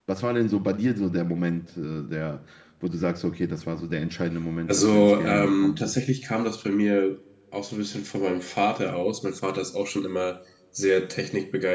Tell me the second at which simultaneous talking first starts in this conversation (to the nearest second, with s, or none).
5 s